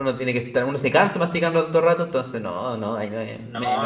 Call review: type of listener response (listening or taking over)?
taking over